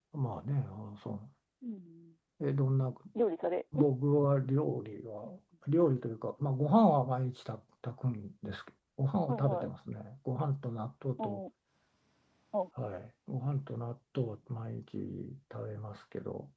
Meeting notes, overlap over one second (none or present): none